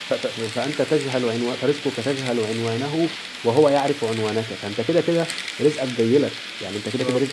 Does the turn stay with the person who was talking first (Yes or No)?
Yes